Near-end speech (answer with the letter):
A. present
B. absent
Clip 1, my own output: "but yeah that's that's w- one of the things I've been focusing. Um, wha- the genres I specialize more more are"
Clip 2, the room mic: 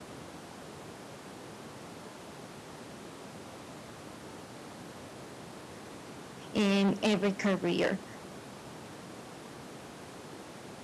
A